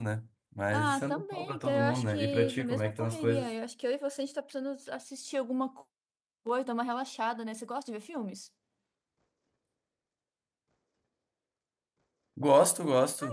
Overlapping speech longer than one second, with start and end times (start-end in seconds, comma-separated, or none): 0.7-3.5